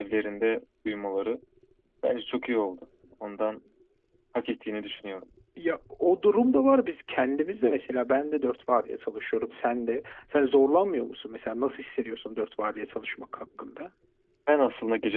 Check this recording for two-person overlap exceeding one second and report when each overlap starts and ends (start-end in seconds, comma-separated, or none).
none